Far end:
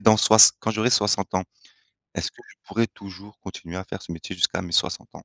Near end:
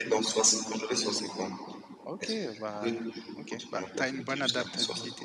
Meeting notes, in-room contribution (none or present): present